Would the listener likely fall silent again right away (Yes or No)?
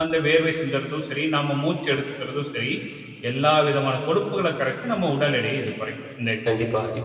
No